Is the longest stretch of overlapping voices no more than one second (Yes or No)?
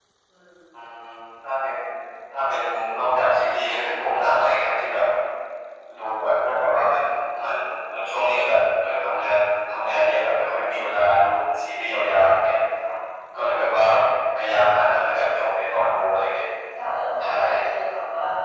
Yes